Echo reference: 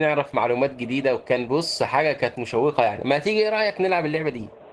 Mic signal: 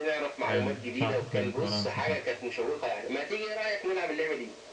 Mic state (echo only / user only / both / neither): both